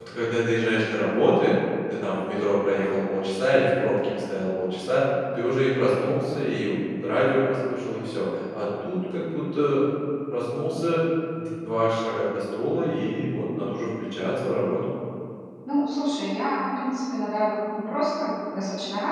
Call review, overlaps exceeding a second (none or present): none